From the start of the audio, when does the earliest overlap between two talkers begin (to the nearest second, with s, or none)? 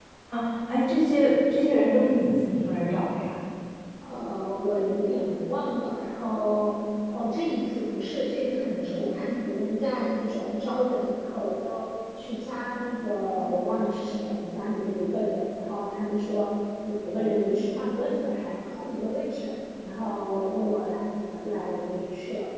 none